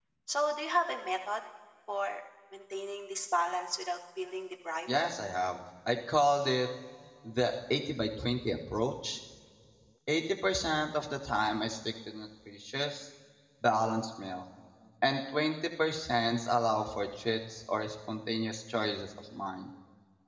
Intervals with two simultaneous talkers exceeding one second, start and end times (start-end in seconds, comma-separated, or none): none